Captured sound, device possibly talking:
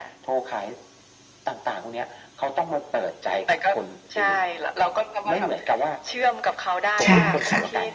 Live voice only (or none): ใช่ค่ะ